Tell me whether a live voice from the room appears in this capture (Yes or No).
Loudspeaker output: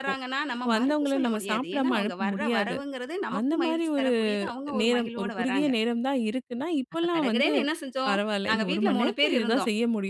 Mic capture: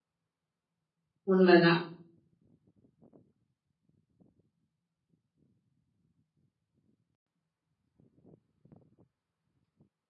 Yes